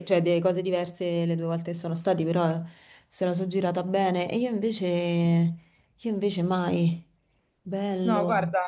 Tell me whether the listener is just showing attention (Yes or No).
No